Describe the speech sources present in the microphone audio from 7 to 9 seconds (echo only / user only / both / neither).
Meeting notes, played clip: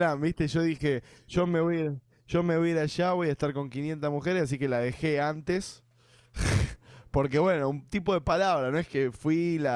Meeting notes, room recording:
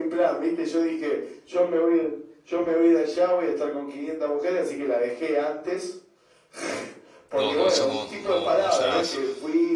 both